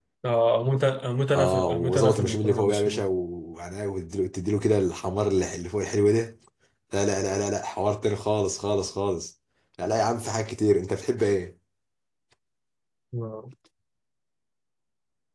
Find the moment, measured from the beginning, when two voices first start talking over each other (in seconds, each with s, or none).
1.3 s